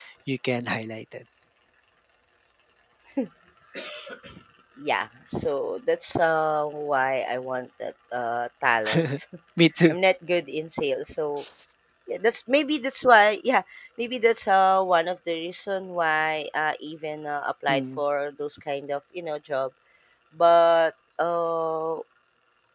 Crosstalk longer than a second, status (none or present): none